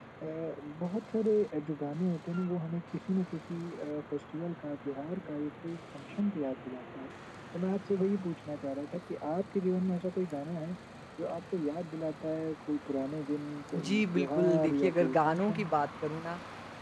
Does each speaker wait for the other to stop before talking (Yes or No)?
No